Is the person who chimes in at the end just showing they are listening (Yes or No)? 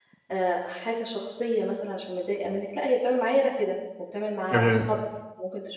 Yes